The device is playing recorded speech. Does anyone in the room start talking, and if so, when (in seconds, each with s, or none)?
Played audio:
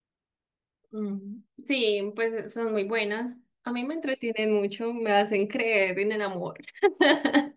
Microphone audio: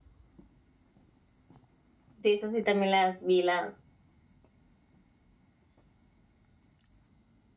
2.2 s